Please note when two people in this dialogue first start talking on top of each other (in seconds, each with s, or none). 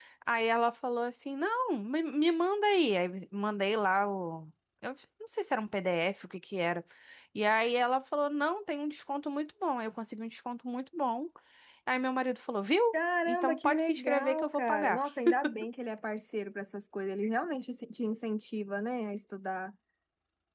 13.3 s